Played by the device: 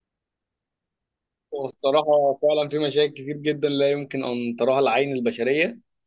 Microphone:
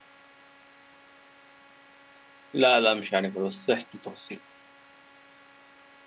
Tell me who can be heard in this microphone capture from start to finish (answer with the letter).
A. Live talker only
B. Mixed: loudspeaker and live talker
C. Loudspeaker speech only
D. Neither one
A